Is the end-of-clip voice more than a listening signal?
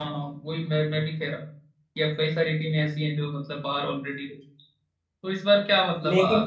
No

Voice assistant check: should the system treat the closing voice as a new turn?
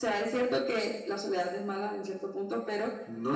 No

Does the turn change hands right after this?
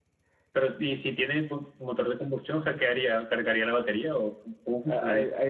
Yes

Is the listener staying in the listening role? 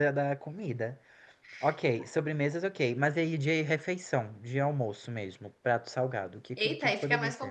No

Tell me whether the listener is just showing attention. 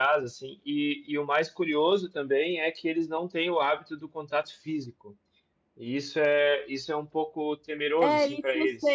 No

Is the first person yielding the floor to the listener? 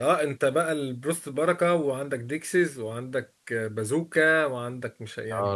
Yes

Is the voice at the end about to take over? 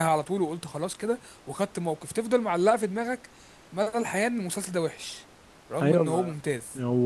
Yes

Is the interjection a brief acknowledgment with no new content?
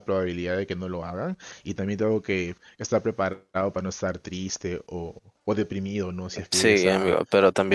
No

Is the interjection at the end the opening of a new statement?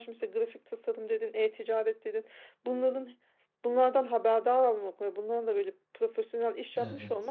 No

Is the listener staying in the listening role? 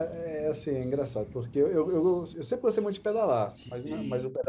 Yes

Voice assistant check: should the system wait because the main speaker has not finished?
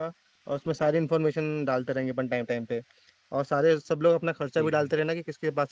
Yes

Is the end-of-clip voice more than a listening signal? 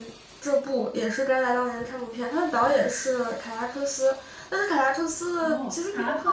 Yes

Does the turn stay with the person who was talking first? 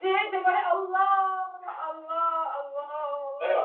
Yes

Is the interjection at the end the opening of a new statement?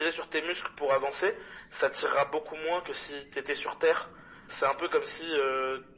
No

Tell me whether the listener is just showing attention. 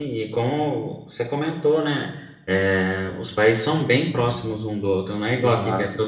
Yes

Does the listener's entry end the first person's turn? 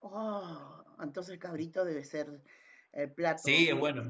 Yes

